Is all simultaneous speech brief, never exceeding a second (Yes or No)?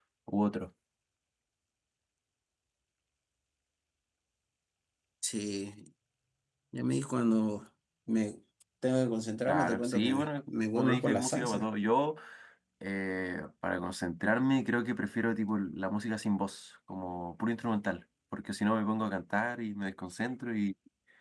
No